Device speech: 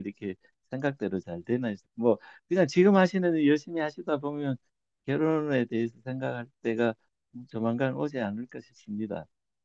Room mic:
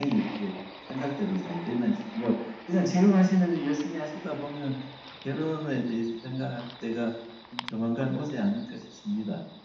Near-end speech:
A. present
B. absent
B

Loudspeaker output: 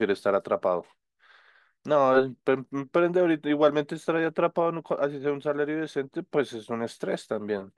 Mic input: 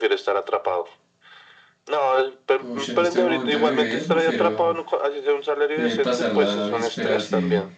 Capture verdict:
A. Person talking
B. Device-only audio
A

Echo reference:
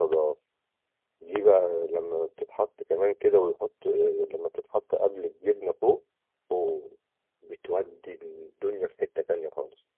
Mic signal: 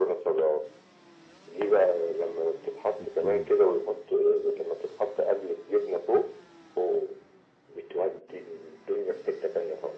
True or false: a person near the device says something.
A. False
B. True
B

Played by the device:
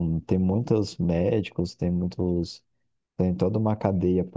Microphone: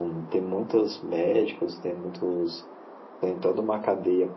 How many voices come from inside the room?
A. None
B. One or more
A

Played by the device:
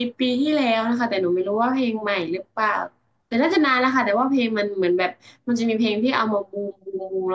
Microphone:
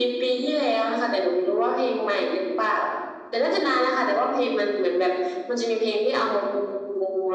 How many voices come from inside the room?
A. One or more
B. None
B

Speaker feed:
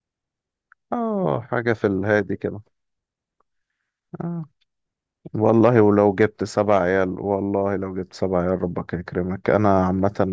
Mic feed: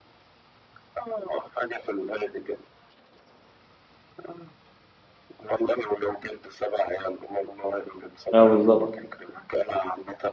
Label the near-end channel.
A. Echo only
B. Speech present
B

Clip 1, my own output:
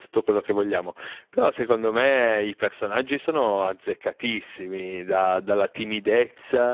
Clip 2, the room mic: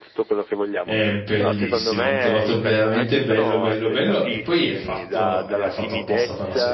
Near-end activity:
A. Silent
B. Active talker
B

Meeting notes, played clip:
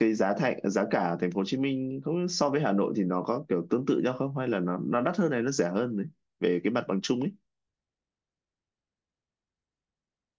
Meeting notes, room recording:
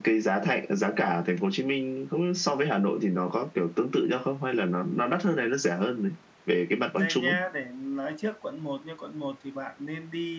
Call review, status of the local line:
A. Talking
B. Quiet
A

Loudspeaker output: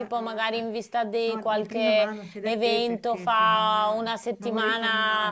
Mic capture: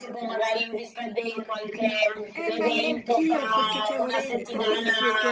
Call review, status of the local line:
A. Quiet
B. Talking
B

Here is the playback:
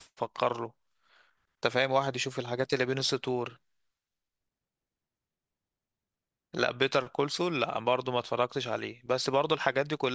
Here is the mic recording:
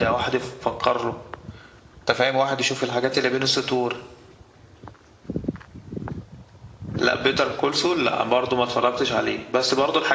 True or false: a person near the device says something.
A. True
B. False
B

